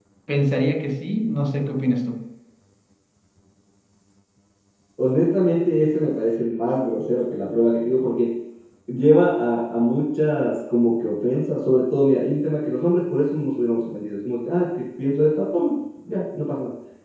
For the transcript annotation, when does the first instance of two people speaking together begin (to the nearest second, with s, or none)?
none